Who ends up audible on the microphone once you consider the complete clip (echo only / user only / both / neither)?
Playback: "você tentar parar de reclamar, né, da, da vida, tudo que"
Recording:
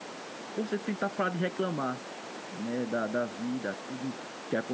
echo only